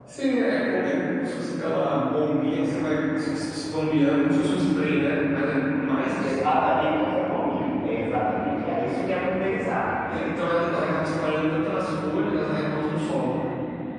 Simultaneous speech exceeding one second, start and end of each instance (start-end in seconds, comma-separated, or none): none